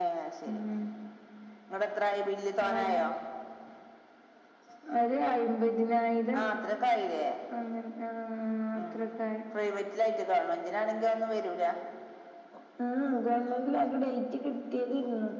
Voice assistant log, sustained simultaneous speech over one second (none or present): none